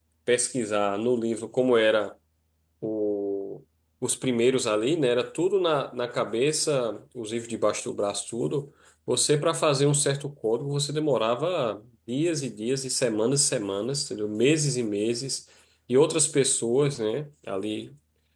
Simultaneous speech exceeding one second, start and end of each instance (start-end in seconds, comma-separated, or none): none